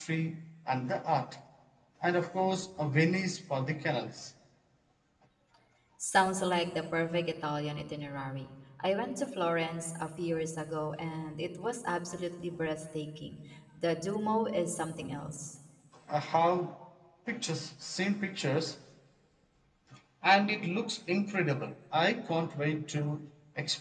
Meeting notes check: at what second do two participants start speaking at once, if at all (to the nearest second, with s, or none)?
none